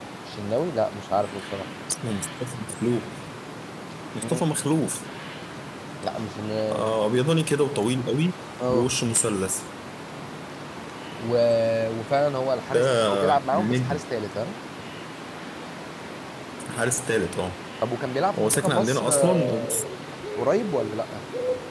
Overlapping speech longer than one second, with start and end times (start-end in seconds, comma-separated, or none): 12.7-14.0, 18.4-19.8